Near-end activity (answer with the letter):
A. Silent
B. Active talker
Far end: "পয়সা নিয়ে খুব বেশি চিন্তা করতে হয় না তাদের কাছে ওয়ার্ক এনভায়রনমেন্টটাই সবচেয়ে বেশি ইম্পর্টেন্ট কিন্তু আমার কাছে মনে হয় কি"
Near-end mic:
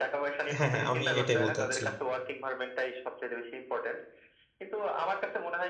B